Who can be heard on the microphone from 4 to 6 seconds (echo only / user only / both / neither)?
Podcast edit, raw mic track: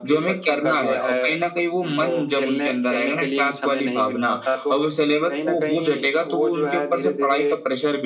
echo only